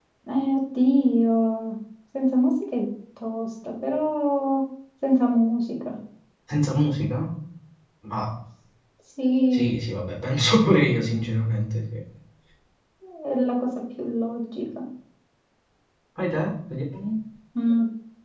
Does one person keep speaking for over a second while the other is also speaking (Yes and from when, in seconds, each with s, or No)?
No